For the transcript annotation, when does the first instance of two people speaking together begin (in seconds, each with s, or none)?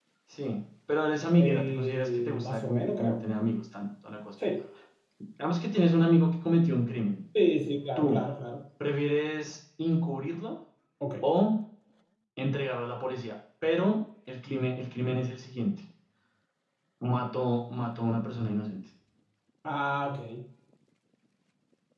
1.4 s